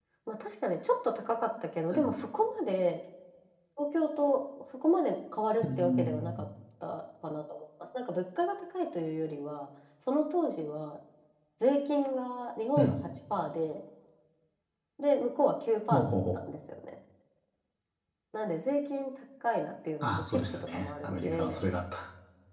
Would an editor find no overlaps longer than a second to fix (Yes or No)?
No